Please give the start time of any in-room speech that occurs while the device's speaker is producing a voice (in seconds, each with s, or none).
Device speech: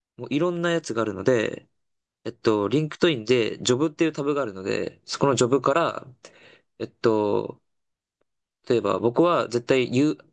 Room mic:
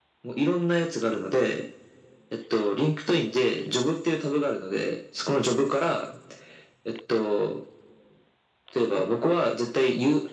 none